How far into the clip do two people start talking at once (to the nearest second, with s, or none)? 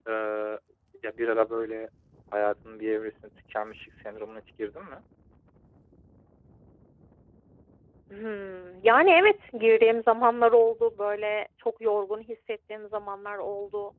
none